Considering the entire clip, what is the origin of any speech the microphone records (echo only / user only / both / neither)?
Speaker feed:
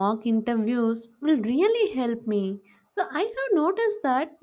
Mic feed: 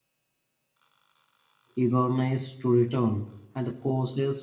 user only